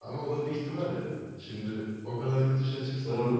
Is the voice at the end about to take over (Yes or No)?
No